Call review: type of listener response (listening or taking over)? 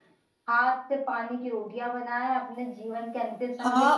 taking over